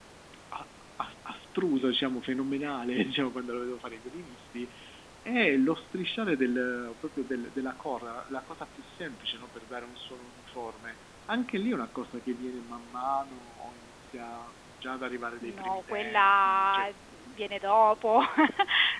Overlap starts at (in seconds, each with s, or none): 15.4 s